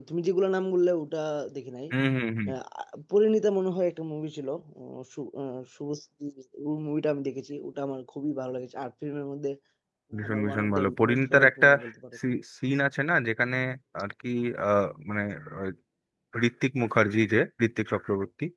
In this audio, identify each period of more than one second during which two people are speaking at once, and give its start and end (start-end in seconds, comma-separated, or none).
10.3-11.7